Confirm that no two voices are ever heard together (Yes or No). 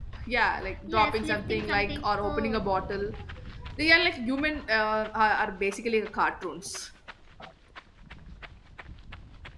No